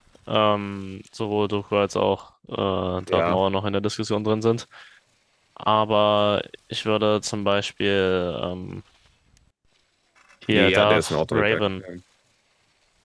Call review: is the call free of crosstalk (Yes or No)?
No